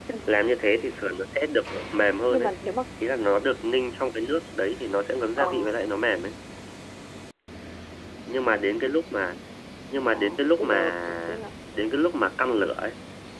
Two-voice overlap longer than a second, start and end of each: 10.1-11.5

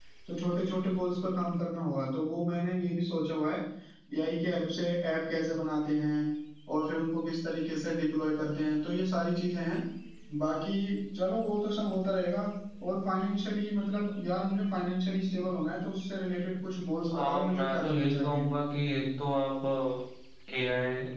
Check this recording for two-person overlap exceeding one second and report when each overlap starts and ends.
17.1-18.4

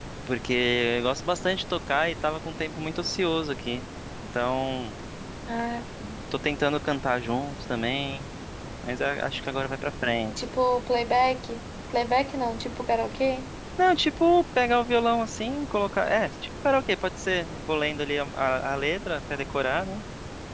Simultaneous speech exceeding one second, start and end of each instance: none

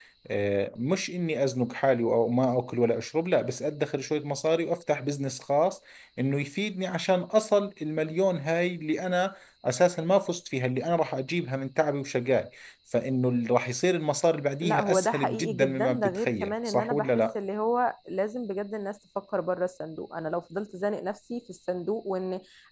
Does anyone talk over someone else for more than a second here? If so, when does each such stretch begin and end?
14.6-17.2

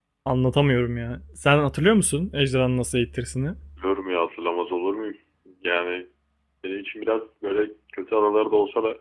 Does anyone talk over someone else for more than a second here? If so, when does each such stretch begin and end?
none

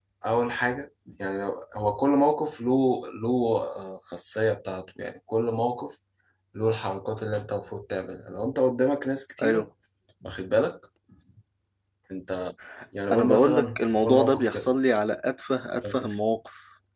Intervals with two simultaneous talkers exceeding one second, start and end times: 13.1-14.7

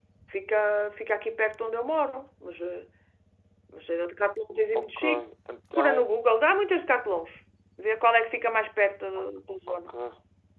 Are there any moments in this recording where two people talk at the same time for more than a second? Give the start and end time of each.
none

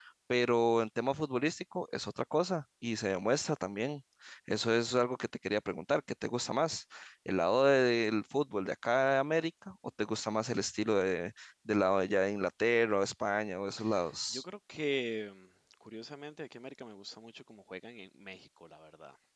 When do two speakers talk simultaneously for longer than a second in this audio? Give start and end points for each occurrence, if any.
none

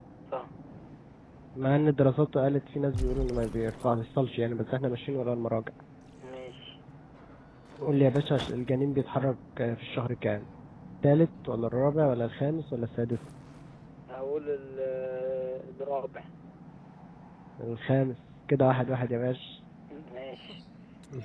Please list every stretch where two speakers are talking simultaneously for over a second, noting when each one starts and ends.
none

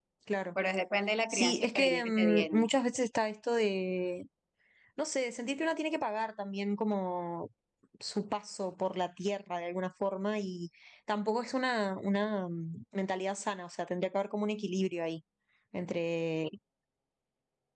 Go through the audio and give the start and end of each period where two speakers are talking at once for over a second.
1.3-2.7

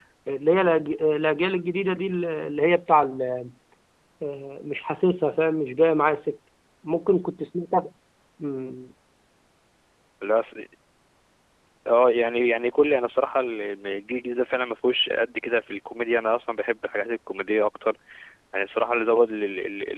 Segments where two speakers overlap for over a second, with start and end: none

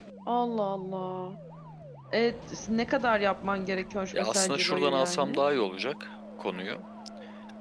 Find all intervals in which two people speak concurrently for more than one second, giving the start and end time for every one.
4.1-5.4

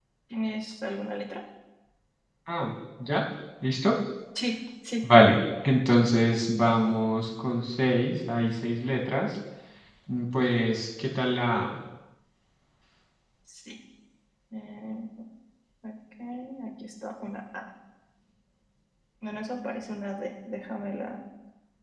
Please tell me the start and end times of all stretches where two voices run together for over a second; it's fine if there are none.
none

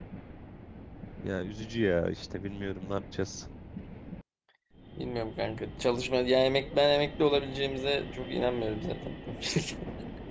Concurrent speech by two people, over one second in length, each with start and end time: none

